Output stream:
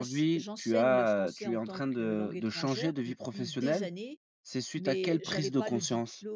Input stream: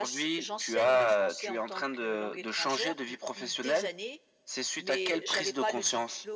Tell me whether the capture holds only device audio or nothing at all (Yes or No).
Yes